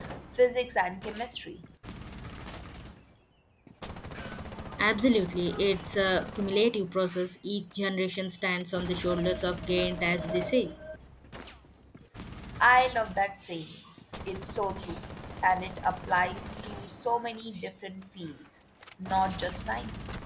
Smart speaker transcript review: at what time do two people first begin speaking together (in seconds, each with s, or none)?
none